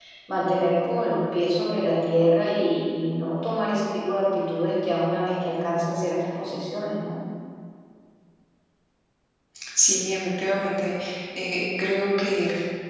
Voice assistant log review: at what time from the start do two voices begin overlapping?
none

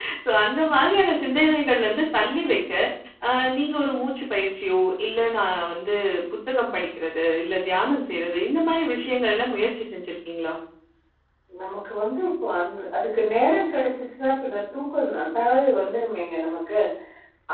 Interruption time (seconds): none

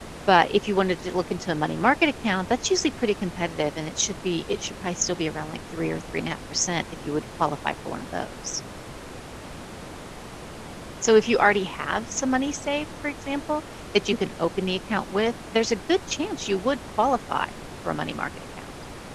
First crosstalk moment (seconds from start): none

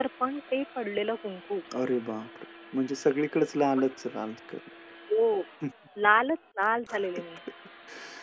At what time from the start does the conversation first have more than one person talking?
none

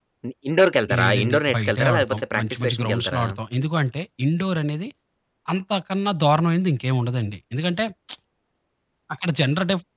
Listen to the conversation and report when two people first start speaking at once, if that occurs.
1.0 s

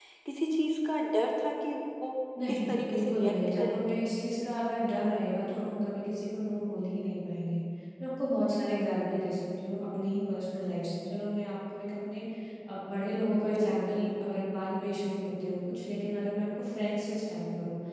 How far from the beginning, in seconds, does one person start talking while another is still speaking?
2.5 s

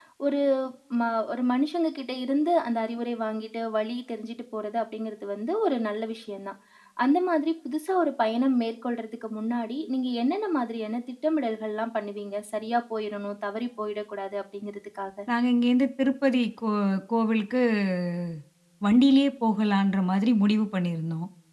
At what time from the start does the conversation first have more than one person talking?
none

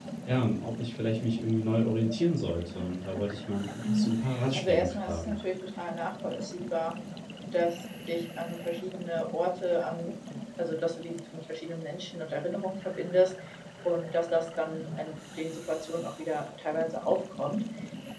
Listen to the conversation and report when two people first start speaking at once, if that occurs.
3.8 s

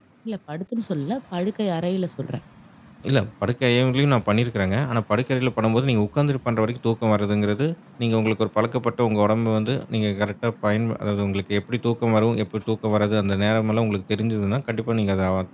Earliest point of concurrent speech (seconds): none

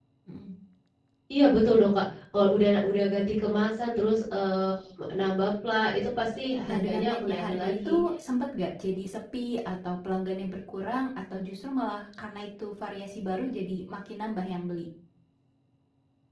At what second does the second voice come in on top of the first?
6.7 s

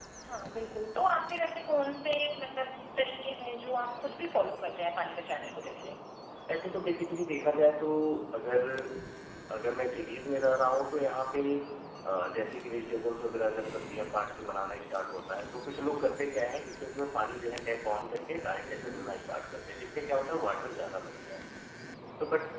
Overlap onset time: none

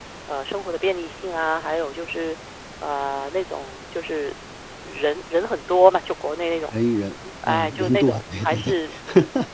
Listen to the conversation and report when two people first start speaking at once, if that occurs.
7.5 s

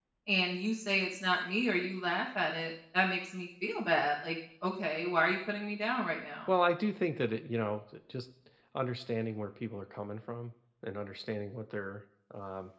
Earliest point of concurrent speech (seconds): none

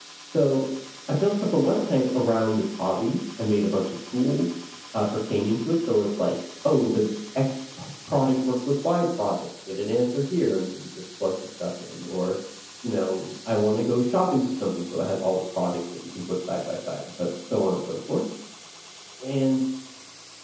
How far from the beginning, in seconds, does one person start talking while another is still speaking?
none

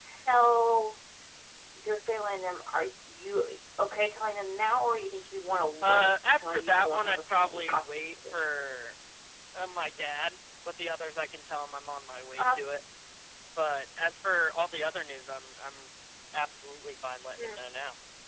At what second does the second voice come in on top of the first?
5.8 s

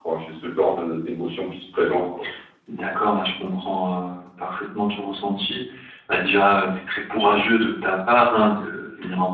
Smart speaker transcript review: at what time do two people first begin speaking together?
none

